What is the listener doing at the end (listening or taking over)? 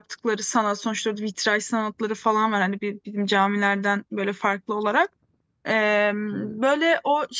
listening